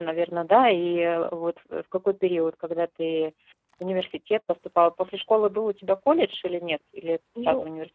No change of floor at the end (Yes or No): No